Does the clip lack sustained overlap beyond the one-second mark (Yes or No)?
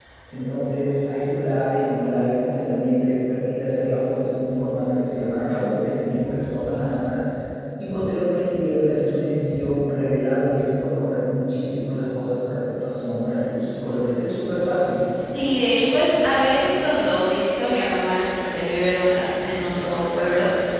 Yes